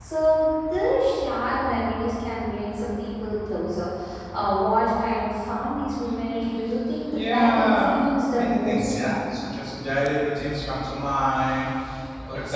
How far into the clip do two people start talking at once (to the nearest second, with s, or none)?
7 s